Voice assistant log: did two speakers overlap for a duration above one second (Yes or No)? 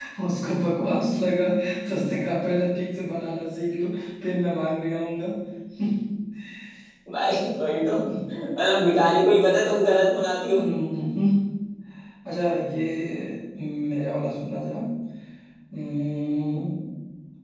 No